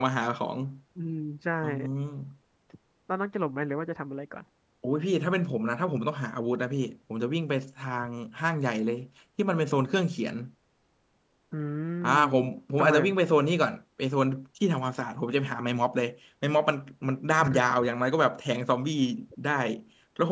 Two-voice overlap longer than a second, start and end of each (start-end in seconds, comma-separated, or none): none